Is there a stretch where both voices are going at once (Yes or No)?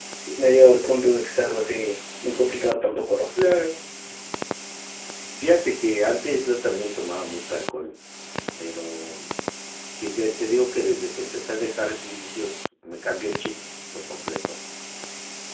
No